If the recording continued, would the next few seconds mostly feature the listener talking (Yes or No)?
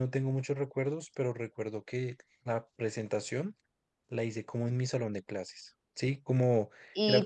Yes